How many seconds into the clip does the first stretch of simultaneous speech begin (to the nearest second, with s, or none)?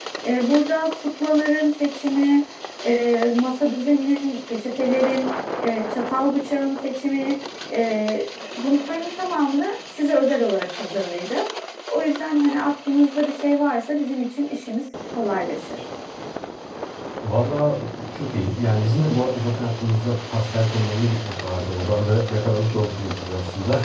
none